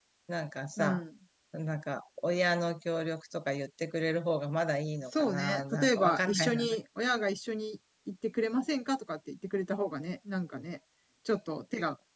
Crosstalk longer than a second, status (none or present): present